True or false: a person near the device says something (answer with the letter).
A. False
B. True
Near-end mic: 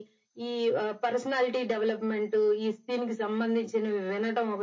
A